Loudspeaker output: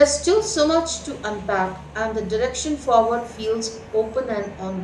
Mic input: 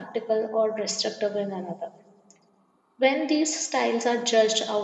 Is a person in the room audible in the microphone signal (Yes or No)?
Yes